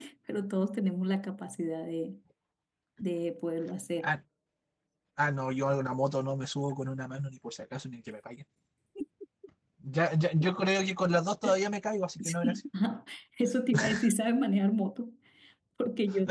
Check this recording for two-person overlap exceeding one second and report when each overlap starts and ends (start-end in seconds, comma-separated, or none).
none